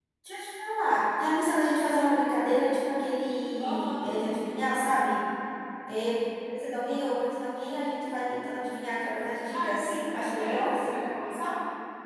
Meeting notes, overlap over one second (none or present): present